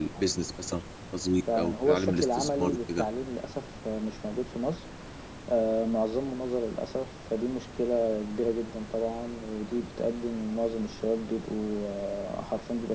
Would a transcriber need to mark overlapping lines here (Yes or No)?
Yes